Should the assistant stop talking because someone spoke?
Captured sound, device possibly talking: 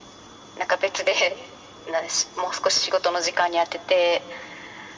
No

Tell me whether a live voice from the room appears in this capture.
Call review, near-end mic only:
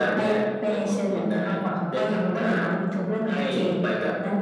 No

